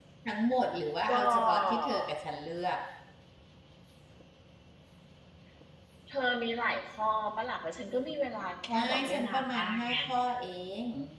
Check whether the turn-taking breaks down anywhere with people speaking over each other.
Yes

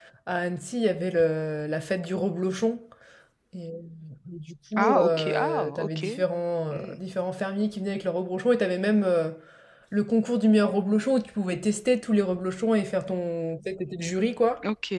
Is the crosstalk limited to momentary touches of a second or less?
No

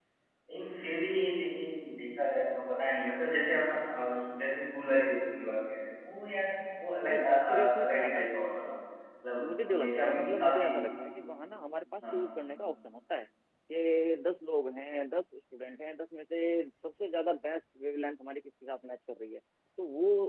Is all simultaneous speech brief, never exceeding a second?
No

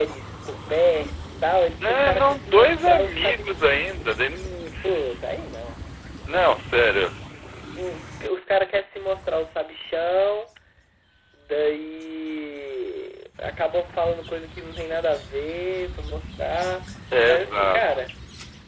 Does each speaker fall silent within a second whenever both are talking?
No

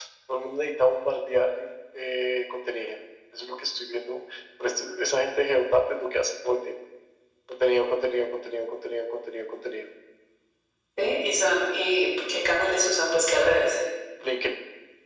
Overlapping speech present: No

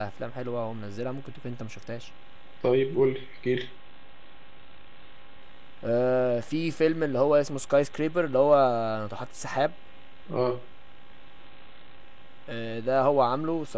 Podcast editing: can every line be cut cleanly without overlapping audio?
Yes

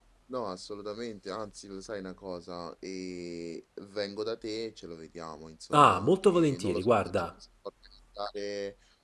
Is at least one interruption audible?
Yes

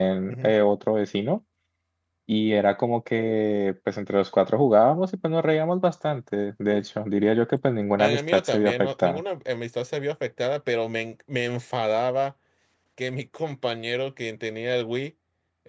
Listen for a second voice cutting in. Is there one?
Yes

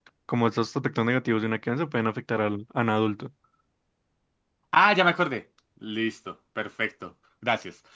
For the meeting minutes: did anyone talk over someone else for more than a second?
No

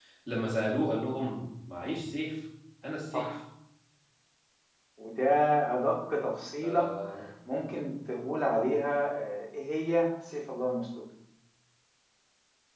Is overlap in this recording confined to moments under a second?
Yes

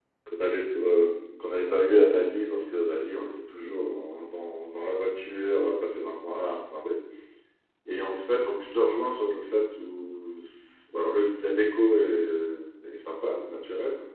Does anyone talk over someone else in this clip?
No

